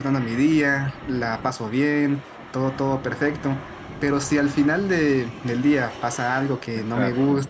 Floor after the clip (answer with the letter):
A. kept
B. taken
A